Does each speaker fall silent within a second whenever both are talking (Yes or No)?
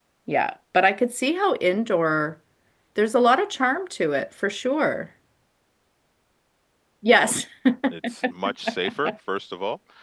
Yes